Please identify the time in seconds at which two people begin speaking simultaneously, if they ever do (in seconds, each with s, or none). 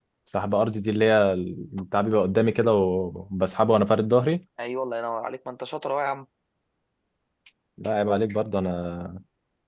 none